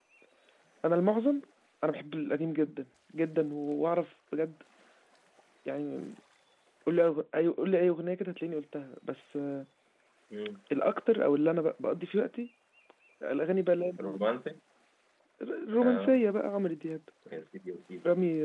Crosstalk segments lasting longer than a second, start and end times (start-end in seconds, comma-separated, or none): none